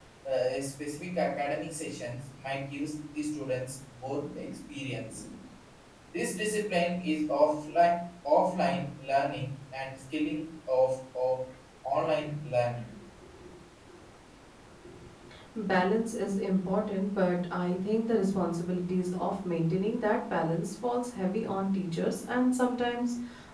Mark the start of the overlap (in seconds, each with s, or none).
none